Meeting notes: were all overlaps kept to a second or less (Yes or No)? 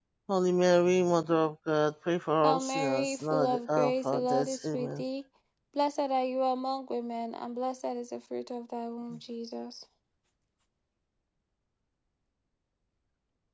No